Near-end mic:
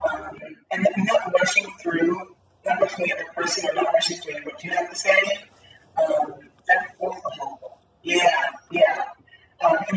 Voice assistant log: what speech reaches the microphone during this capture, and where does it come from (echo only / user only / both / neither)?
echo only